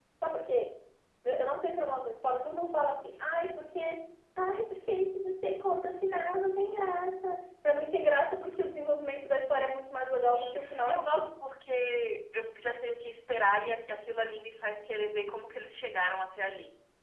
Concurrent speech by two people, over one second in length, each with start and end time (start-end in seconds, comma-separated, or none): 10.0-11.3